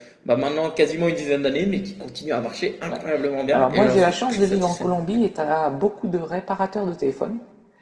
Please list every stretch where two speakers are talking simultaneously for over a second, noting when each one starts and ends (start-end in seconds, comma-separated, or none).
3.5-4.9